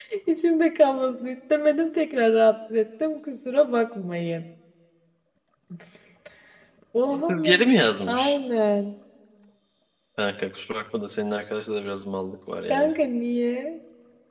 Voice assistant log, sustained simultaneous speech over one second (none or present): none